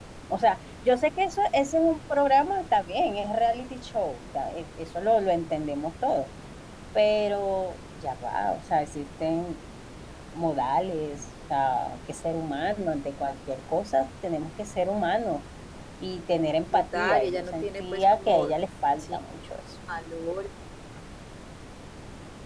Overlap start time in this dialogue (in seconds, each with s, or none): 16.7 s